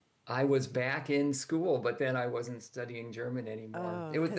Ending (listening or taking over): listening